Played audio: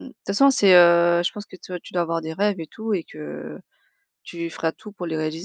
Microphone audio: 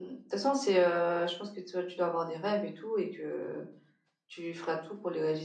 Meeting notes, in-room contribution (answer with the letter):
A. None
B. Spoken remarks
A